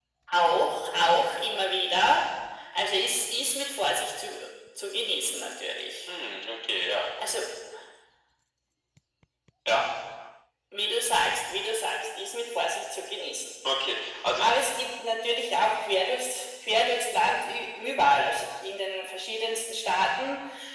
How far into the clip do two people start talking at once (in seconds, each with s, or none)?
none